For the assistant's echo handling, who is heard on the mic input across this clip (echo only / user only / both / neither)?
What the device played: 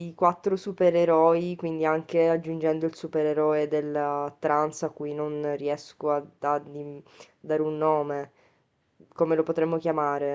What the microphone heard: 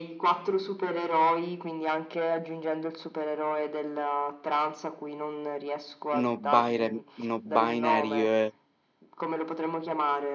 both